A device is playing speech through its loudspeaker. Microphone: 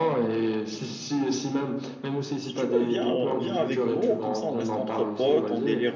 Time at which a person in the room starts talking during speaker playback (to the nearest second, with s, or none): 2 s